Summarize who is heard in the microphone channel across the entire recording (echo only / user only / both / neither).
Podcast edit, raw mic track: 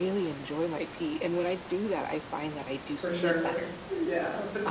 both